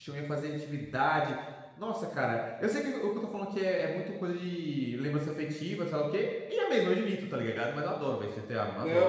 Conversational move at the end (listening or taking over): taking over